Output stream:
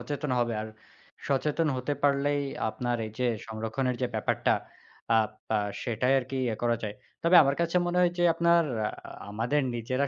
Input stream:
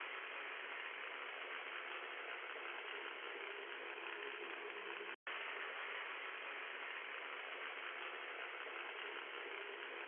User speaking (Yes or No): No